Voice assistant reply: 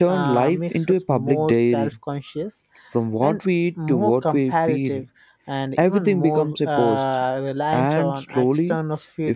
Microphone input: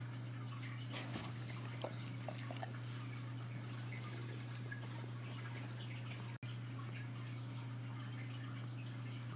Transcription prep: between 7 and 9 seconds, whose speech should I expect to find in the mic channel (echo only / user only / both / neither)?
neither